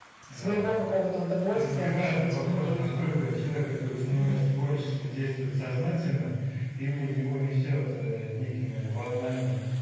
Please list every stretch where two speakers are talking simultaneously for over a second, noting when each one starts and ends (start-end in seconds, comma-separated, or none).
1.5-2.7